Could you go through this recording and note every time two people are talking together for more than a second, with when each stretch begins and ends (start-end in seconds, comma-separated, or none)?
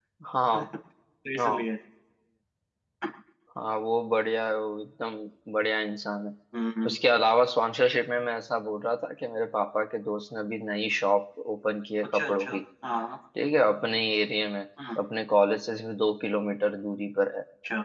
none